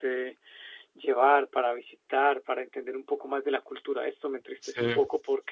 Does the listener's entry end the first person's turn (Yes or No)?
No